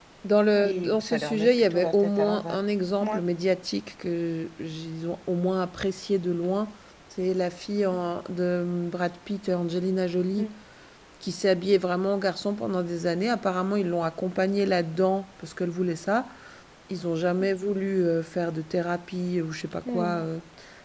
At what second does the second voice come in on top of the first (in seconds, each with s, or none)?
0.6 s